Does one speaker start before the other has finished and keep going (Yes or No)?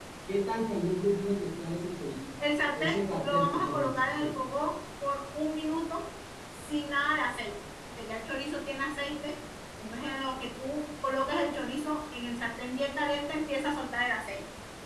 Yes